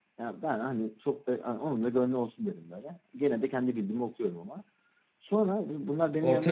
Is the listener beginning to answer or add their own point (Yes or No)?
No